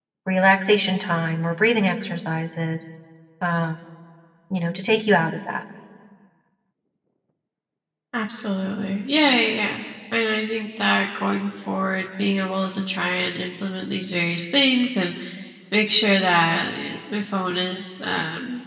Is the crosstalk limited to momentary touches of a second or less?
Yes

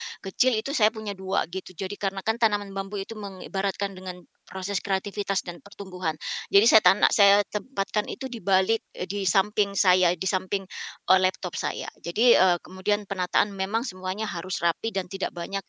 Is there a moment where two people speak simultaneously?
No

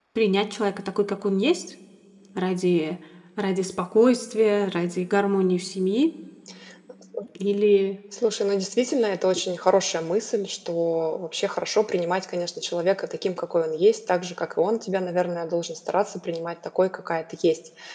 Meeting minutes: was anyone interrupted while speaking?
No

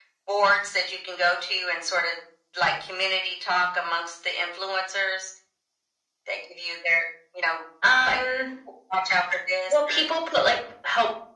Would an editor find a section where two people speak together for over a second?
No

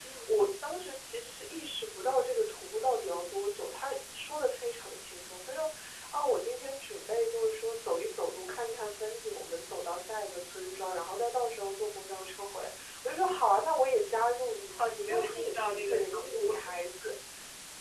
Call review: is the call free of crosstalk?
No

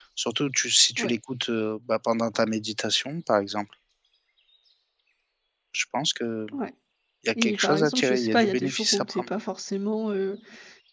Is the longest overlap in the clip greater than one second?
Yes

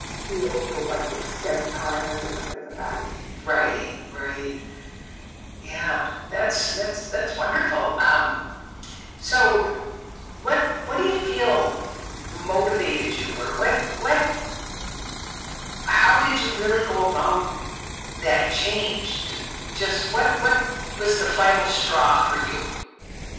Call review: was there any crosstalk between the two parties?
No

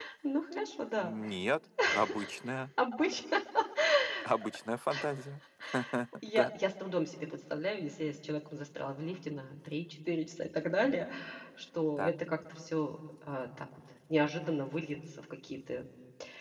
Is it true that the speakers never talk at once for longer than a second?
Yes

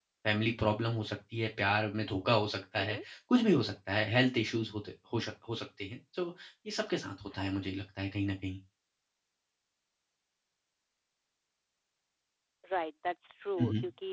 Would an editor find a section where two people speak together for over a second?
No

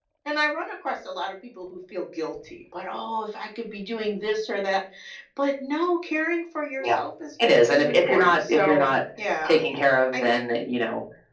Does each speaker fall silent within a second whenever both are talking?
No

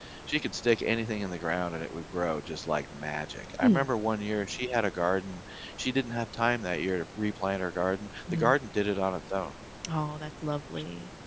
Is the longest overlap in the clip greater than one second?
No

